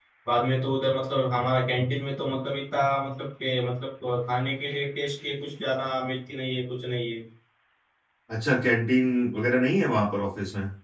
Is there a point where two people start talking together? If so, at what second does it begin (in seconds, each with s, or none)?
none